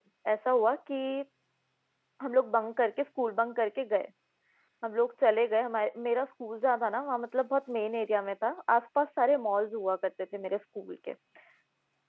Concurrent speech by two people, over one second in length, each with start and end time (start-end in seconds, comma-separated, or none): none